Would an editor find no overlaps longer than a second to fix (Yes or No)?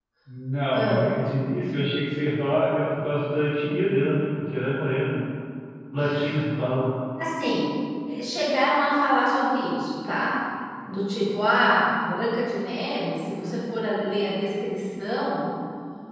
Yes